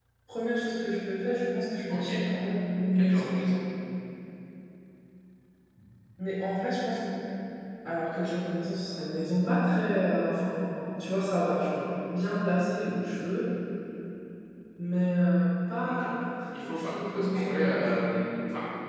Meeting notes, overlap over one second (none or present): present